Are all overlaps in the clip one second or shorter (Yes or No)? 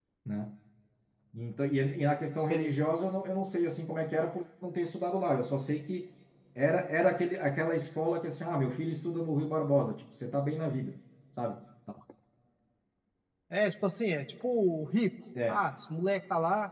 Yes